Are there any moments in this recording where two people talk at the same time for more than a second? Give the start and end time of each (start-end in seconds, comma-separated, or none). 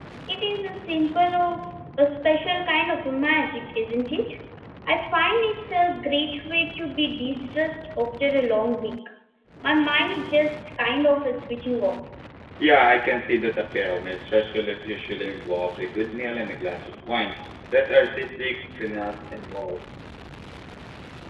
none